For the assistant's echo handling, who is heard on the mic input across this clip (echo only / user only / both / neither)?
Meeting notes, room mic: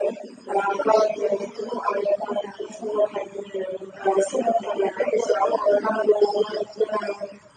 echo only